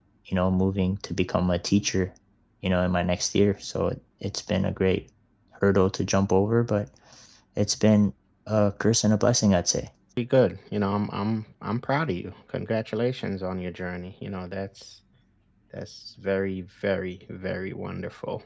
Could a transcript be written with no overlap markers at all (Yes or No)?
Yes